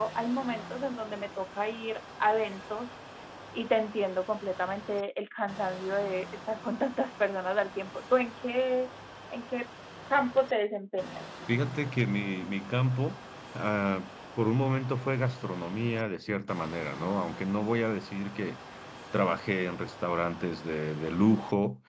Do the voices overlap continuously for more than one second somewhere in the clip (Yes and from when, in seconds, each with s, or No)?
No